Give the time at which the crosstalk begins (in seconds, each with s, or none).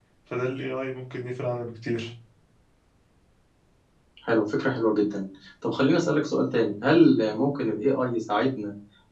none